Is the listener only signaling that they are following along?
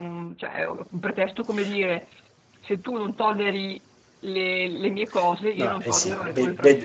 No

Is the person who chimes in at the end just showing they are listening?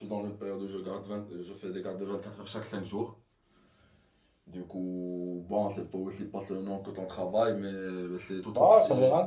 No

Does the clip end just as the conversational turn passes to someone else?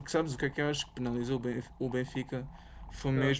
No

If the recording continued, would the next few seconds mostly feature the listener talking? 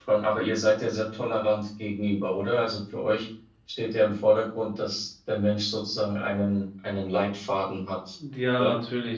Yes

